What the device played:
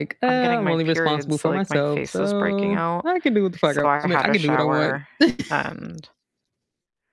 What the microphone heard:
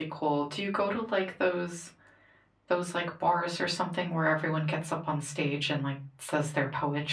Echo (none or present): none